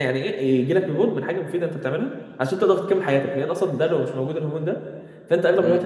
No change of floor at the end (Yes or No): Yes